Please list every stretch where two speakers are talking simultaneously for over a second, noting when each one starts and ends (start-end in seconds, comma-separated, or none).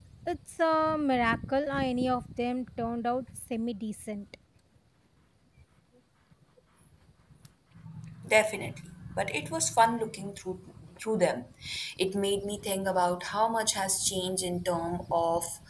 none